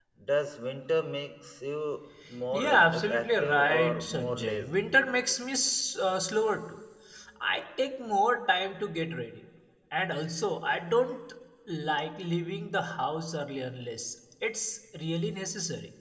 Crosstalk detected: Yes, from 2.5 s

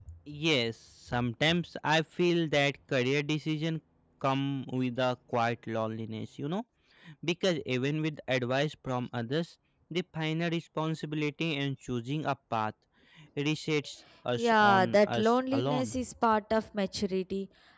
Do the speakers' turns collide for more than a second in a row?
Yes, from 14.4 s

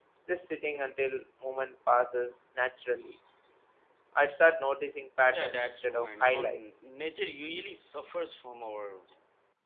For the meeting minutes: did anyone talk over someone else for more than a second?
Yes, from 5.2 s

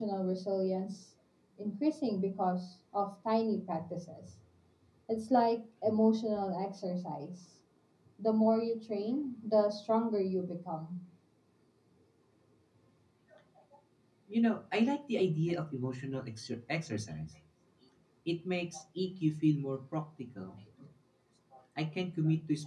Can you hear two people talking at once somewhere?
No

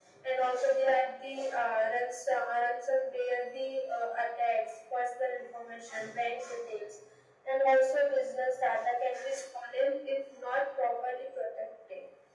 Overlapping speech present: No

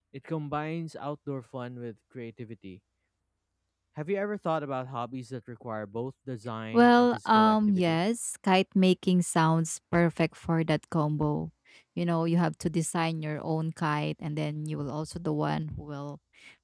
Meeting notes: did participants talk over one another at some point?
Yes, from 6.7 s

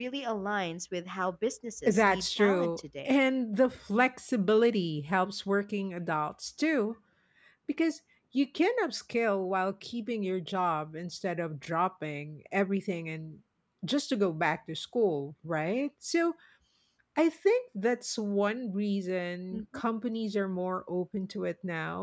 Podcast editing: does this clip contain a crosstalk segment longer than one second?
Yes, from 1.9 s

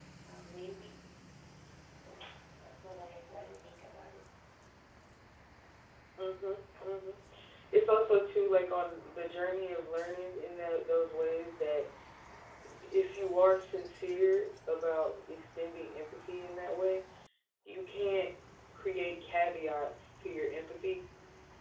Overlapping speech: No

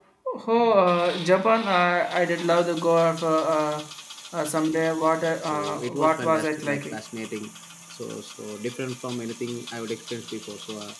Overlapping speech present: Yes, from 5.4 s

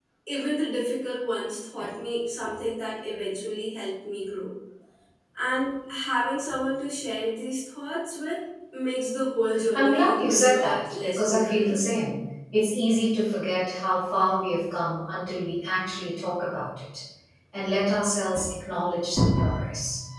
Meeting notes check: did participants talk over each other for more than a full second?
Yes, from 9.5 s

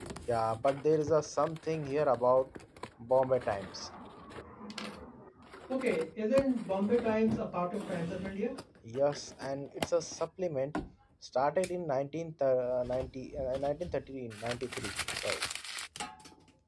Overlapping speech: No

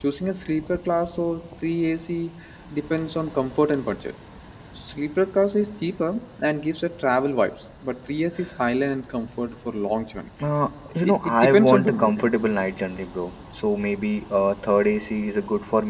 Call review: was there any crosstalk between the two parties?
Yes, from 11.0 s

